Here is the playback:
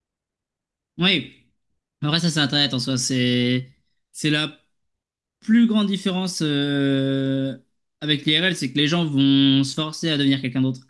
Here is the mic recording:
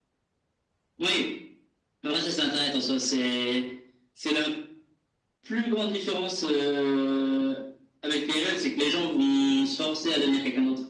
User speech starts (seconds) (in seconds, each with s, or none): none